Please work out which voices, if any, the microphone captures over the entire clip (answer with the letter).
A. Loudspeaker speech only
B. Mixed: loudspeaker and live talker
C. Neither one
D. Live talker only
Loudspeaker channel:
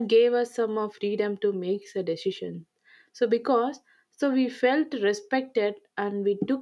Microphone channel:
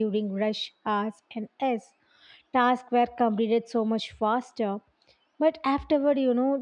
D